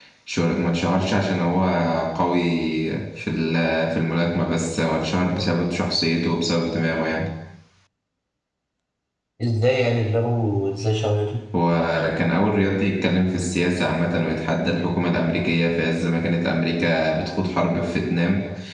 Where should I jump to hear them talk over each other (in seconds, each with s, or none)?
none